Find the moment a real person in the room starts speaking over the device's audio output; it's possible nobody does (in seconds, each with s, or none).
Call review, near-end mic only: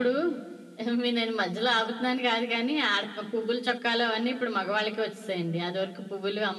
none